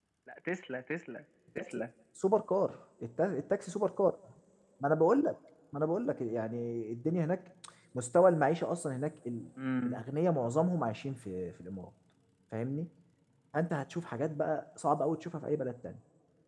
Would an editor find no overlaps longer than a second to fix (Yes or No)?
Yes